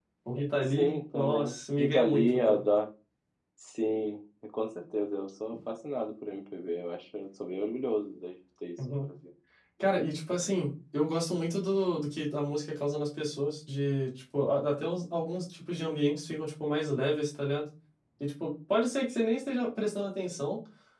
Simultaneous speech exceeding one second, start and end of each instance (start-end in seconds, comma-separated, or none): 0.7-2.6